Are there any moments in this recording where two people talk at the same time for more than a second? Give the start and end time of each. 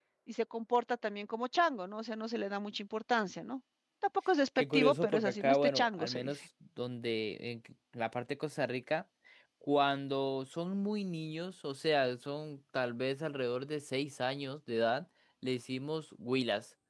4.7-6.3

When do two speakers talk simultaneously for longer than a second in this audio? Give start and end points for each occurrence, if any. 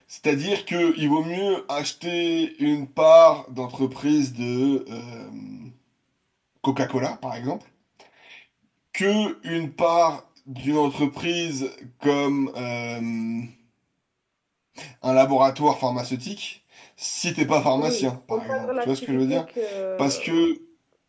17.8-19.5

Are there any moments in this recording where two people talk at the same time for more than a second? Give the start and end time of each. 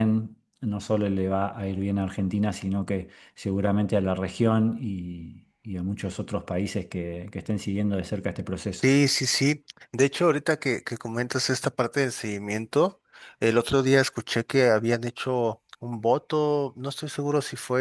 none

